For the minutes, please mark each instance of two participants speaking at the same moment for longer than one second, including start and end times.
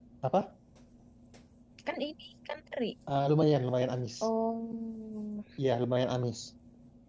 none

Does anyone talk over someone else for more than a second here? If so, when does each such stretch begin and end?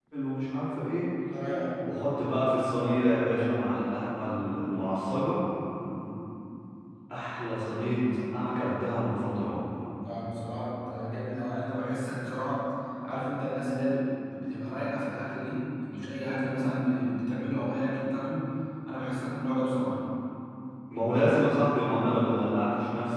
none

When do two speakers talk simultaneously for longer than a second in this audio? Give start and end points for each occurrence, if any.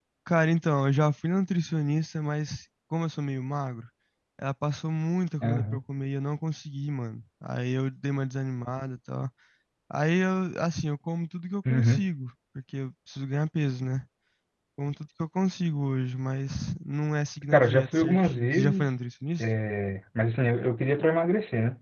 17.5-18.9

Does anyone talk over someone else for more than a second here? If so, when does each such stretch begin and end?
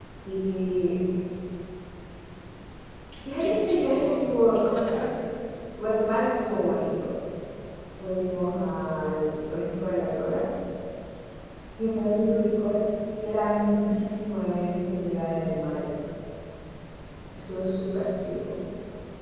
3.4-5.0

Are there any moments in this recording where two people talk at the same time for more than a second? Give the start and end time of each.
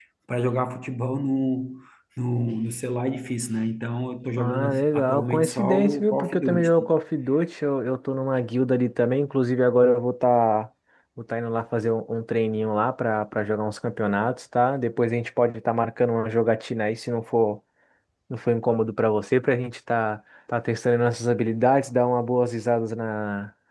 4.4-6.9

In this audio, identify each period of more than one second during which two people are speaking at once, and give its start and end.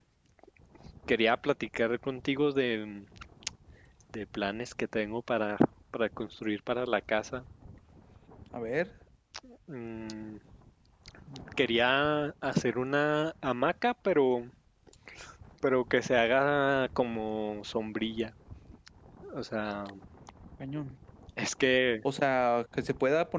none

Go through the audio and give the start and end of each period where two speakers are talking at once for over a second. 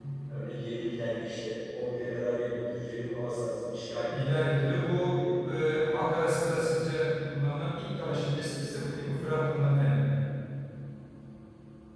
none

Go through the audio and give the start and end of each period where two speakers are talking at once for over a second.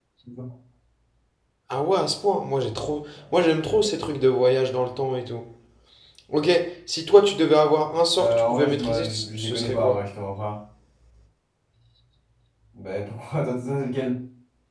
8.2-10.0

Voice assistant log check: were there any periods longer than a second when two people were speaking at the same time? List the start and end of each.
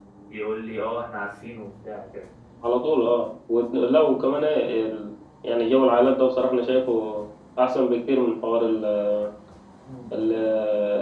none

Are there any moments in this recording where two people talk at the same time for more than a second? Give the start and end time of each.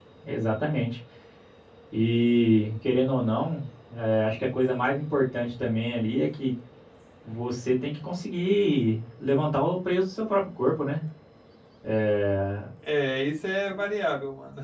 none

